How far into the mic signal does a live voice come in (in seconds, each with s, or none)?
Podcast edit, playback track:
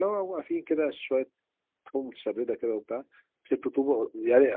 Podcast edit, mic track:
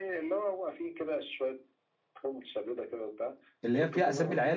3.6 s